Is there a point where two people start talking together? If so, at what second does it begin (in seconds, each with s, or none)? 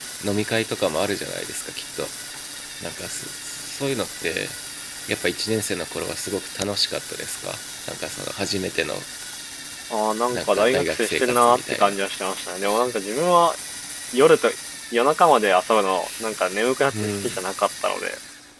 10.3 s